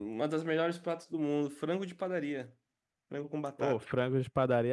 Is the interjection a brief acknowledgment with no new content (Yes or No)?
No